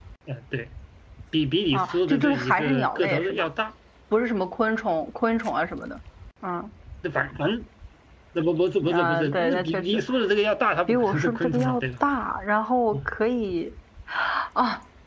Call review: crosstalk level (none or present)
present